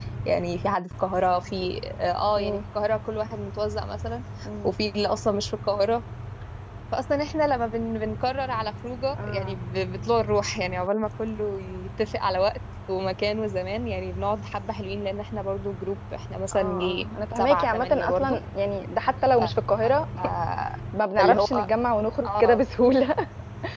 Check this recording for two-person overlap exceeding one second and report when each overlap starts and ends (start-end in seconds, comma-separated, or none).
16.5-18.4